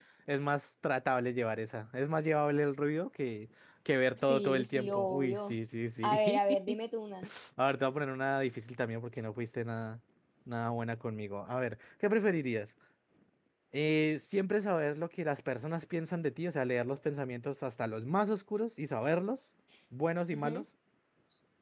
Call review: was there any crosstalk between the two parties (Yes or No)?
Yes